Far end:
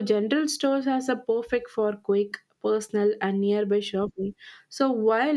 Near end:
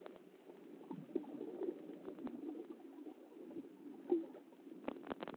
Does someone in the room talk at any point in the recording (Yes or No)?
No